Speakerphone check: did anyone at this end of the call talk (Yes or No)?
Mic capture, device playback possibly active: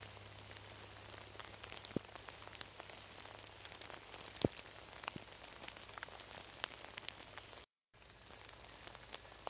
No